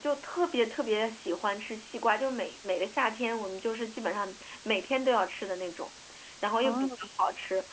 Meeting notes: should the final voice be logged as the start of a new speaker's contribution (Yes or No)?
No